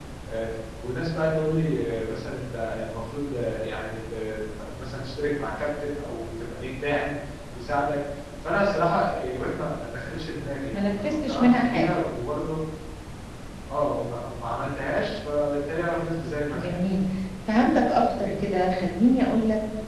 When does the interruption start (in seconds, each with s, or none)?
10.7 s